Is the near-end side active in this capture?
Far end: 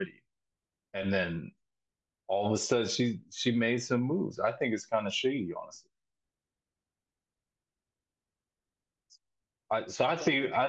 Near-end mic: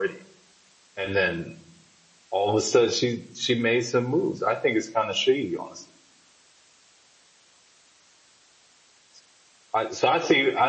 No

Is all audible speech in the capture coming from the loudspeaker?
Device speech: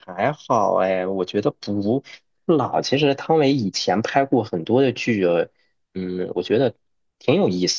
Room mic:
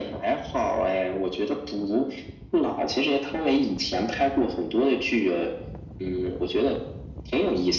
Yes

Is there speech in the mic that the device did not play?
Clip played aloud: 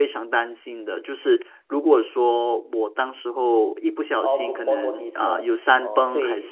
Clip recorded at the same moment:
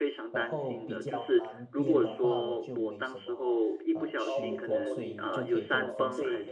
Yes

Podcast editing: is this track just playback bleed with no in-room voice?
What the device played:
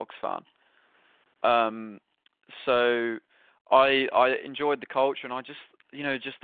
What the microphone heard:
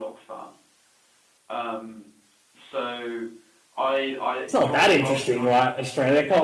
No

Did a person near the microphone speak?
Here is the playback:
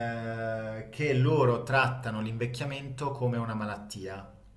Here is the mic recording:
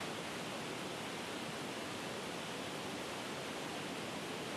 No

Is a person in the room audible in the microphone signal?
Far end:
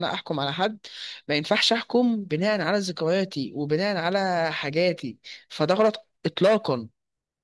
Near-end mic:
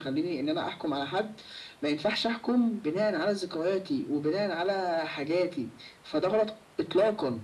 No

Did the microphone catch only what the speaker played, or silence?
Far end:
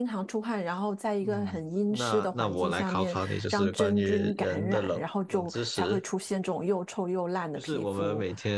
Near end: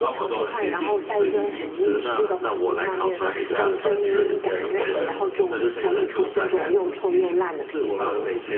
No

